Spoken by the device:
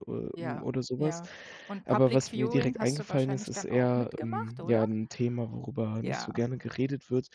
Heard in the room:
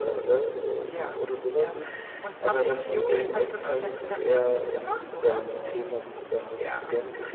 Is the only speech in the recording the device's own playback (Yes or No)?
No